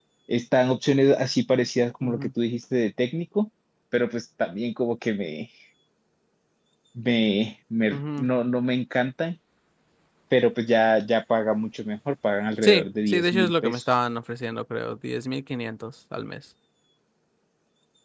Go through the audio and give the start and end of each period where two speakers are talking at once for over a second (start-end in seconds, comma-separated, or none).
12.6-13.8